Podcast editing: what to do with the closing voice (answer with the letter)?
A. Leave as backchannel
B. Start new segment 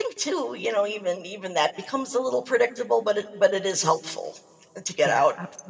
B